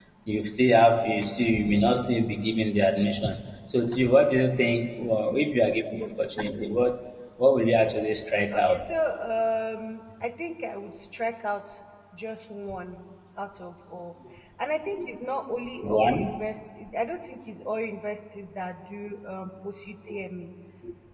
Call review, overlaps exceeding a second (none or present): none